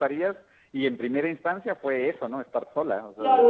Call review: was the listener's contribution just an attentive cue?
No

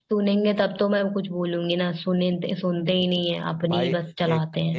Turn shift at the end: Yes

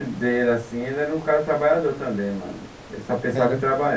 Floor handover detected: Yes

